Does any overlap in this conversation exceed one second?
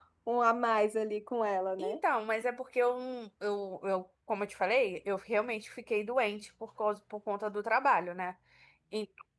No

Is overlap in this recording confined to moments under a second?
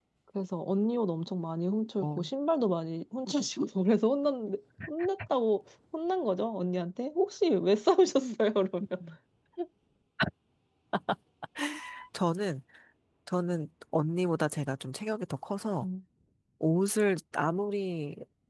Yes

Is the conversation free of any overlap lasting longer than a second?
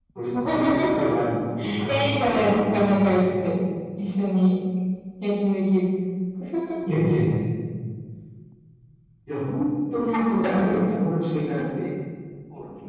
No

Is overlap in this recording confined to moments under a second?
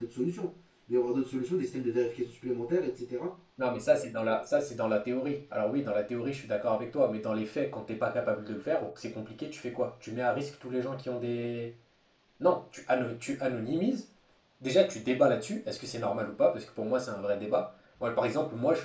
Yes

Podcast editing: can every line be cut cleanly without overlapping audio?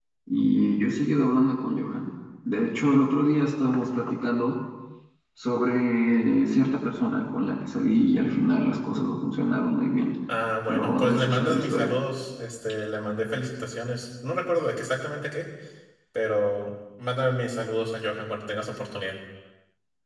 No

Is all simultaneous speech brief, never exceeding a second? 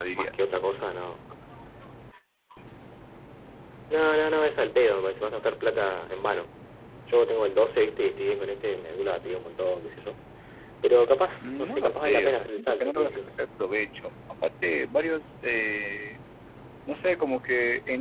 No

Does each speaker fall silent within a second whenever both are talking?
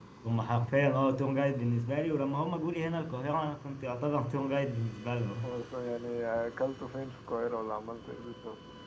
Yes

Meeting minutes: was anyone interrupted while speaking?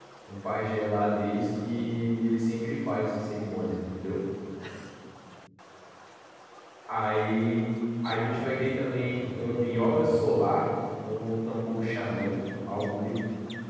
Yes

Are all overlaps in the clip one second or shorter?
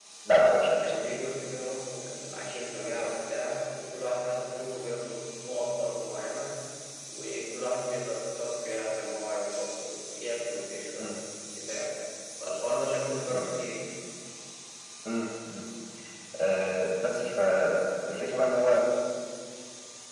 Yes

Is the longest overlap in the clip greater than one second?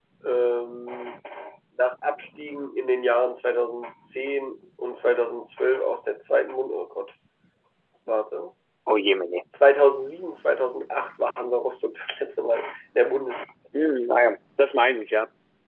No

